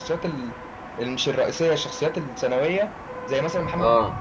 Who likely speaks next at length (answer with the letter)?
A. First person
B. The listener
A